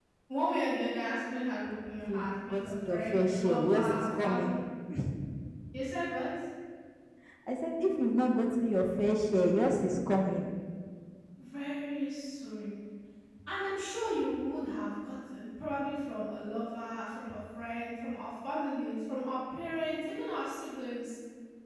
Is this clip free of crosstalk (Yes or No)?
No